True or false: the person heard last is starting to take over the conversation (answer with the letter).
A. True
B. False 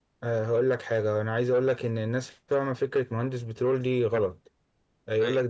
B